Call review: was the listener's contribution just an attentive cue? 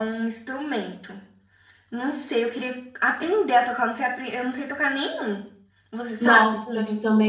No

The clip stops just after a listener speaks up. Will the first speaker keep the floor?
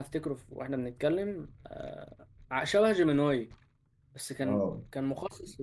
Yes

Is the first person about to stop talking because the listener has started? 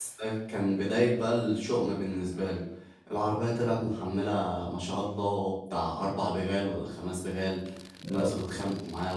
No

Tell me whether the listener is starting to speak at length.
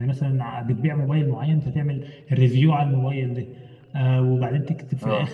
No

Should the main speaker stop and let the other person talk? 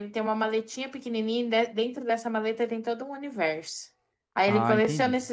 No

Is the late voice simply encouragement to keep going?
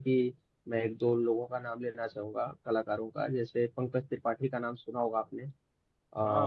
No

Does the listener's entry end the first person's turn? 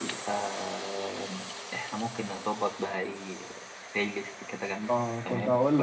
Yes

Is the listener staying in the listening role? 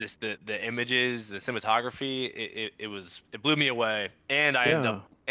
Yes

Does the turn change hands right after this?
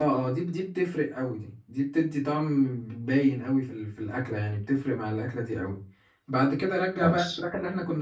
No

